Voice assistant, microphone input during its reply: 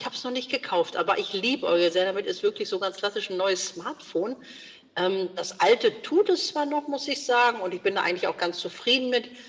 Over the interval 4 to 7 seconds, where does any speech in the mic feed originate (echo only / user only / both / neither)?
echo only